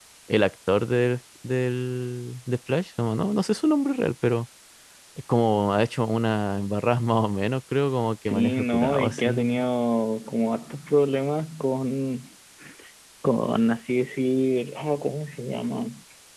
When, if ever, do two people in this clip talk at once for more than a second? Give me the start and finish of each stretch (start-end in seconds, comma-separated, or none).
8.3-9.6